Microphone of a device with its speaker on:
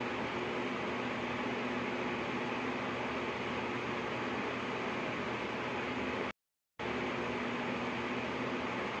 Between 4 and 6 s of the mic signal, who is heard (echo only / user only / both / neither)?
neither